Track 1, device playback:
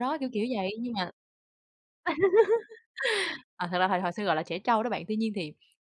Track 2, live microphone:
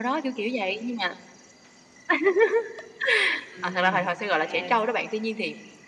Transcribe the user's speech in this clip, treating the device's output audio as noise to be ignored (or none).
Ừm, kê.